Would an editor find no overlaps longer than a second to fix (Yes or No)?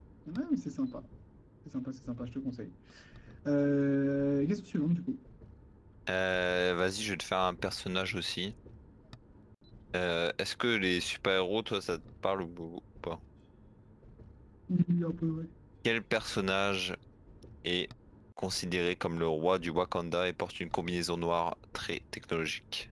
Yes